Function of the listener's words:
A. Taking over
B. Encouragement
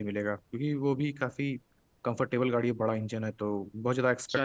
A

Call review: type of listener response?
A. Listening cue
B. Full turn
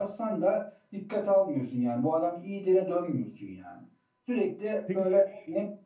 A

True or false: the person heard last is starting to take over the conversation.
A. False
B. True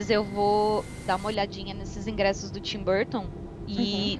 A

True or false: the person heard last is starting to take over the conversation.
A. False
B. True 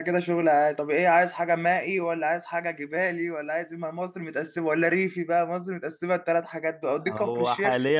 B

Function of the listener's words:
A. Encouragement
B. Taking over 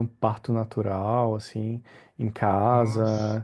A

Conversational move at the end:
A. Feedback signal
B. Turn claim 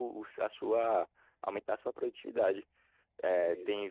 A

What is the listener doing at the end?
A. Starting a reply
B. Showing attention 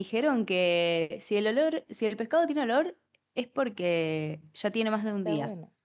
A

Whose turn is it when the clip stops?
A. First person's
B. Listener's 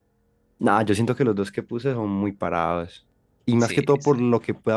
A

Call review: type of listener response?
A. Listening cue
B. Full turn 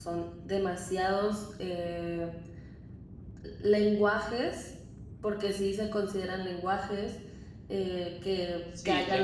B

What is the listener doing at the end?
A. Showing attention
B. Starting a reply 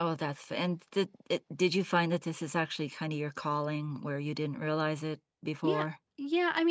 B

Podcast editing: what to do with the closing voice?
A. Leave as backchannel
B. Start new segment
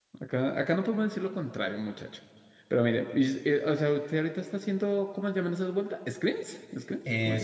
B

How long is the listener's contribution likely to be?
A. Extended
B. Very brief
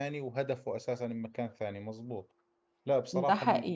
B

